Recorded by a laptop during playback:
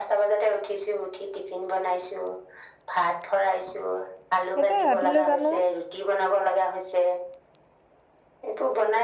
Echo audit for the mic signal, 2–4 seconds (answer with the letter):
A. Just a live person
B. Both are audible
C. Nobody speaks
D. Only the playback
D